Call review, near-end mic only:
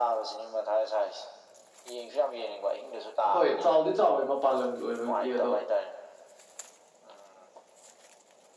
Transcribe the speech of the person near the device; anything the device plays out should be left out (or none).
ꯍꯣꯏ ꯆꯥꯎꯗꯤ ꯆꯥꯎꯌꯦ ꯃꯄꯥꯟ ꯂꯝꯒꯤ ꯑꯣꯏꯕꯒꯤ ꯑꯗꯣ